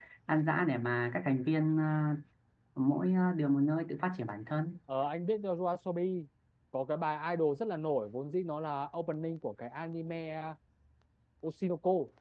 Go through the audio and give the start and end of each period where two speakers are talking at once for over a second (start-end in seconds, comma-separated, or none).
none